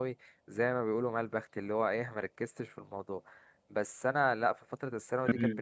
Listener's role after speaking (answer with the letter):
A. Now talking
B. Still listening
B